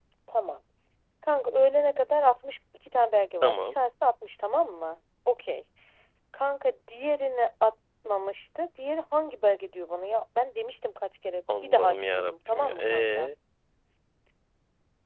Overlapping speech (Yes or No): Yes